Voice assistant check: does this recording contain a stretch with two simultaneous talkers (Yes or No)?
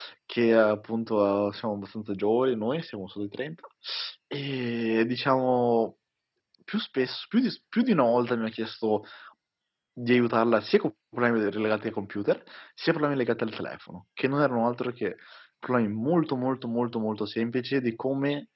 No